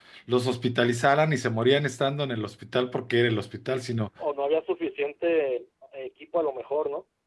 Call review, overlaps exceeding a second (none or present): none